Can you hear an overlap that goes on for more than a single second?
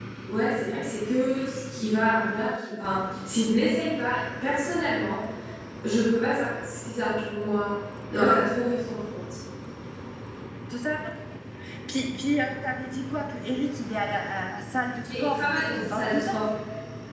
Yes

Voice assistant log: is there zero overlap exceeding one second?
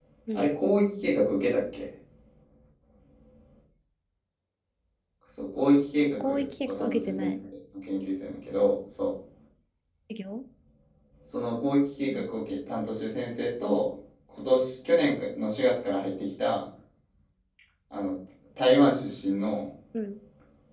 No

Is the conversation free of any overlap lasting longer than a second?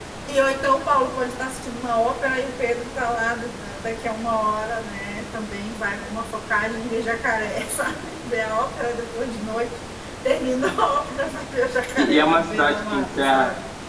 No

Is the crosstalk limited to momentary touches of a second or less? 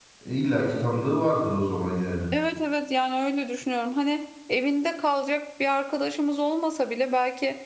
Yes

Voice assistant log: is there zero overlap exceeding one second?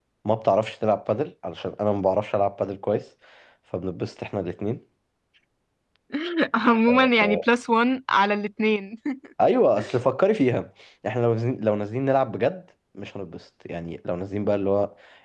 Yes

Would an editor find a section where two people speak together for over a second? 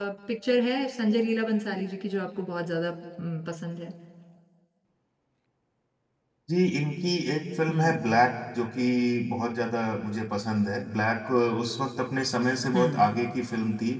No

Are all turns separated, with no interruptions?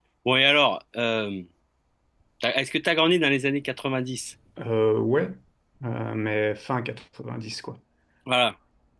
Yes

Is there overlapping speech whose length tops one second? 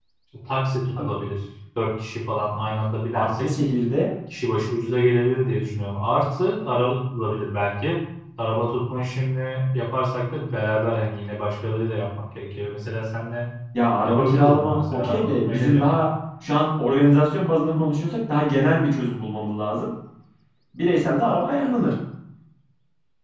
Yes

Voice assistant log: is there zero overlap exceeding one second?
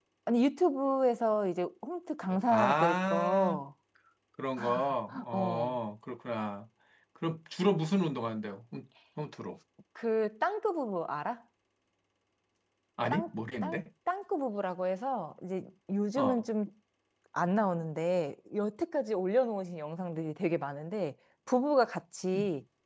No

